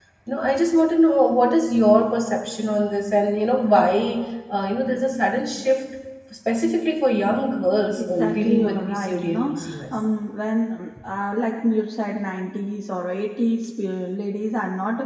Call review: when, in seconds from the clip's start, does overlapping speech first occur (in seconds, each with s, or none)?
8.0 s